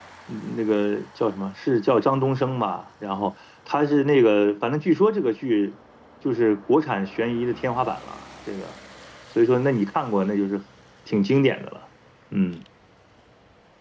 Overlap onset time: none

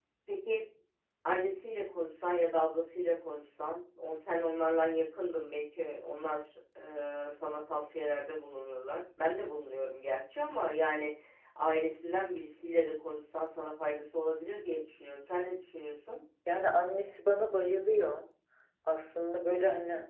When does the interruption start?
none

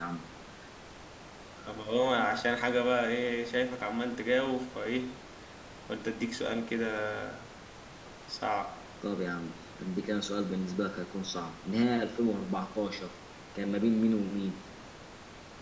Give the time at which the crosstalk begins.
none

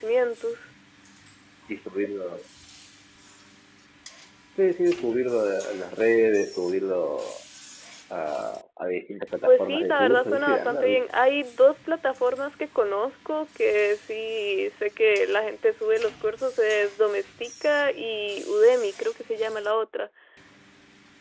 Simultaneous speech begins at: 9.4 s

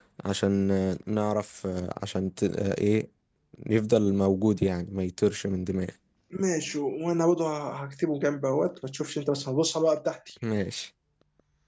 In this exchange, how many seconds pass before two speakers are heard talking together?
none

